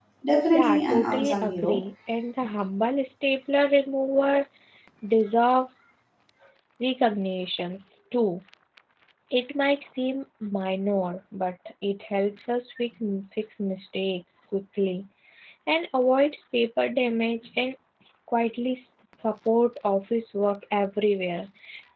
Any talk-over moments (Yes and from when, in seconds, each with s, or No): Yes, from 0.5 s